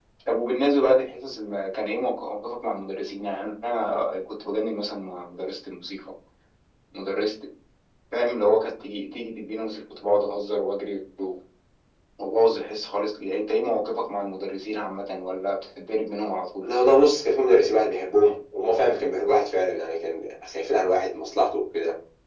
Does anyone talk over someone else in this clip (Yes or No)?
No